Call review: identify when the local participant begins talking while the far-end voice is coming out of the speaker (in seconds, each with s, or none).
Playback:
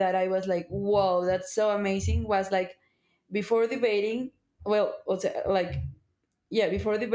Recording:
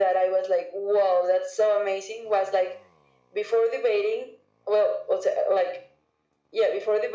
none